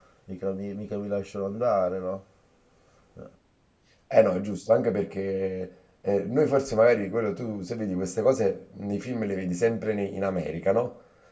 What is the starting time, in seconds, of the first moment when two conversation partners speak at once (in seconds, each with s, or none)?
none